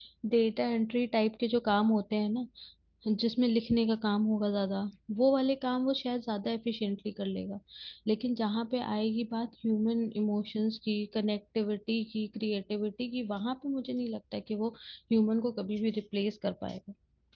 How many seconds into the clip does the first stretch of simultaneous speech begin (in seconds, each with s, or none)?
none